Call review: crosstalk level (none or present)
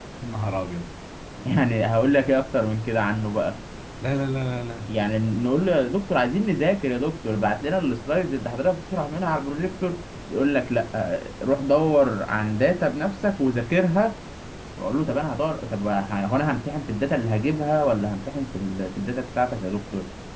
none